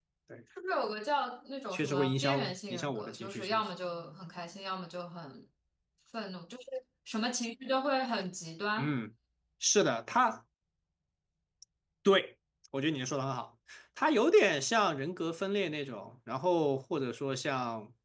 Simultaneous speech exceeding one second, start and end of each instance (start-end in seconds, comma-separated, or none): 1.7-3.6